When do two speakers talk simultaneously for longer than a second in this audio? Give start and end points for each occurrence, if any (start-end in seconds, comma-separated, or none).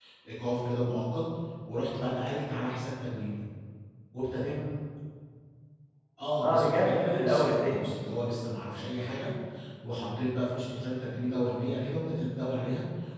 6.4-7.9